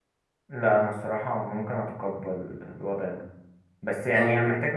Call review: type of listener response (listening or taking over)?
listening